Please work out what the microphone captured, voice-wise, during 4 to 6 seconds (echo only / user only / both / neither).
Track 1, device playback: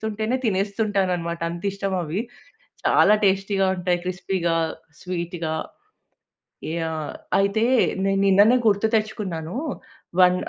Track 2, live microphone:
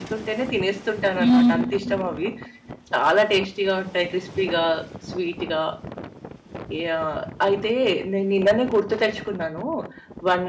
echo only